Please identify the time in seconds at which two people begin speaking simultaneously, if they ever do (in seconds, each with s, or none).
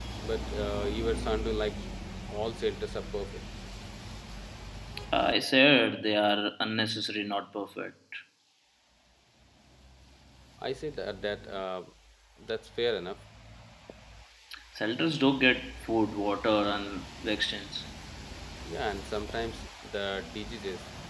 none